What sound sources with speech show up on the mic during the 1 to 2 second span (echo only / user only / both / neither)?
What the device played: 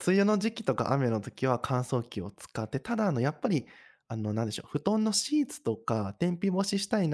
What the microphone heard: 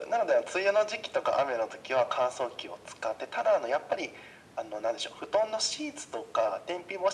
echo only